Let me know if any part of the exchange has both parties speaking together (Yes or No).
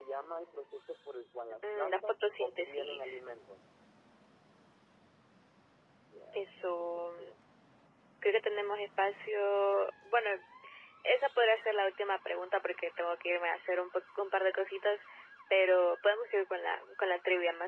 Yes